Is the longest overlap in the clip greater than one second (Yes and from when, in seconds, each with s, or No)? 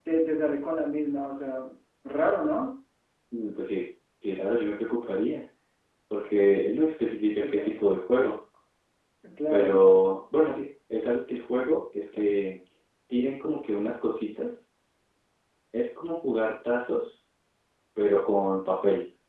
No